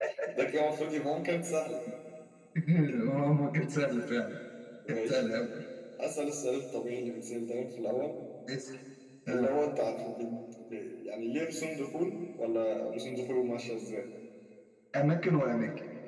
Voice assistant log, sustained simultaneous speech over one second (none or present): none